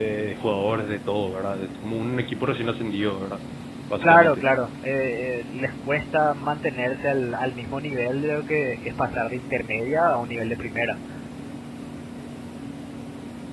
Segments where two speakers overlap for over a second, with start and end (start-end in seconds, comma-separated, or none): none